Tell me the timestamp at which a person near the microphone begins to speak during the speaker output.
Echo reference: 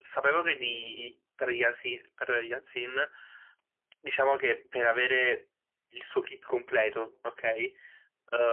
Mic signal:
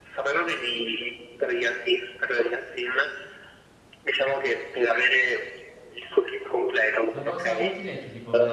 7.1 s

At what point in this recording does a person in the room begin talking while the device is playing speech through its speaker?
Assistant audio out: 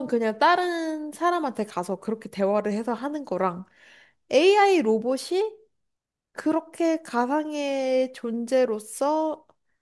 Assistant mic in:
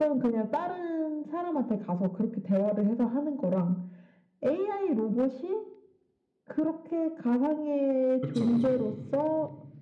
8.2 s

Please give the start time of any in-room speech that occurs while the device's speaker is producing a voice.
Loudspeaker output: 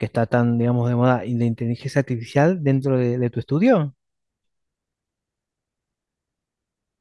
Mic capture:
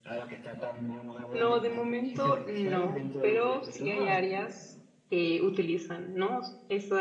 1.3 s

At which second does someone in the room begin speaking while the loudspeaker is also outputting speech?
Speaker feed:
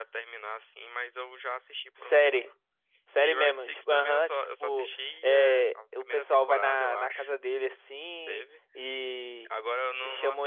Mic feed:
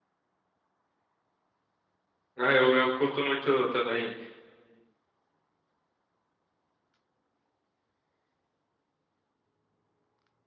2.4 s

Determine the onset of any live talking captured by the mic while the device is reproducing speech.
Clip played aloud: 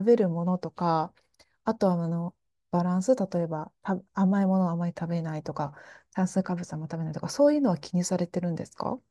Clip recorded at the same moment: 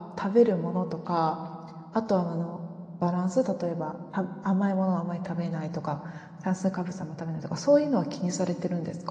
none

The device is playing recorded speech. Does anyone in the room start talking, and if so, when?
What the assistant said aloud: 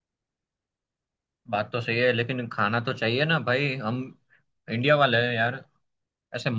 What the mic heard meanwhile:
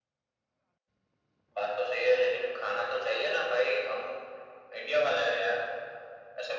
none

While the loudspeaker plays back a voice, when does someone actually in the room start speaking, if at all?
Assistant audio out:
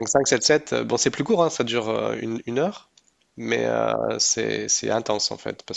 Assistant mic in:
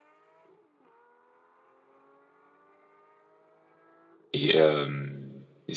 4.3 s

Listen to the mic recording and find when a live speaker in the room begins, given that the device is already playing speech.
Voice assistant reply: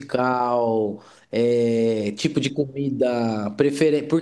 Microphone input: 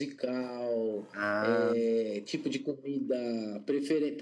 1.1 s

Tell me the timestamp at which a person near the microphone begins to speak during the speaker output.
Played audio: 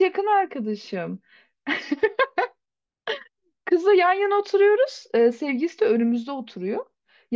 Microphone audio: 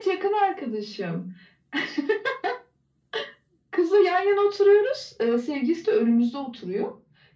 none

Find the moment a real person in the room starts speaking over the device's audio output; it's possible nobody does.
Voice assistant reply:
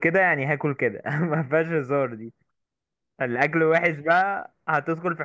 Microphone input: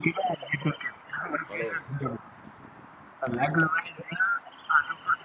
1.4 s

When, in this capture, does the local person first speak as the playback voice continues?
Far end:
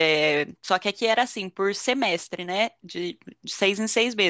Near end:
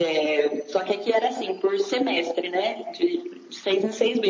none

